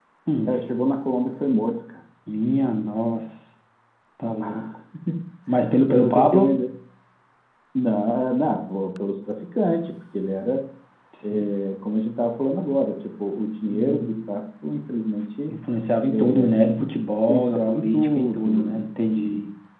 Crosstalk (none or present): present